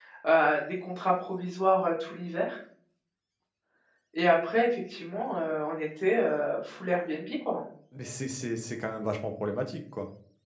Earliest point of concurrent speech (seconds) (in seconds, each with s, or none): none